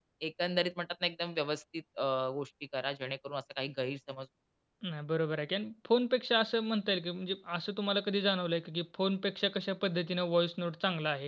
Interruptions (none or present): none